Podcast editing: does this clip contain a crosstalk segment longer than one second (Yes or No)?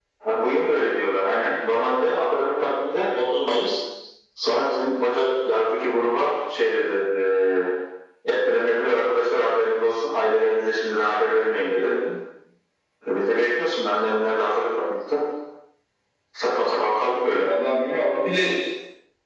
No